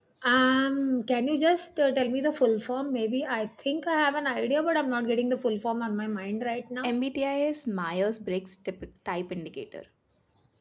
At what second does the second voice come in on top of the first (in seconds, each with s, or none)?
none